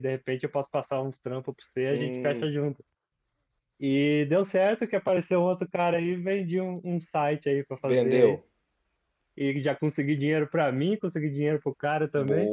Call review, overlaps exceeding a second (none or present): none